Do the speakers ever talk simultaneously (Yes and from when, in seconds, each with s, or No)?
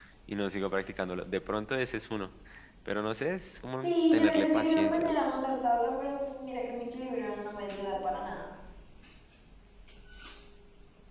Yes, from 3.8 s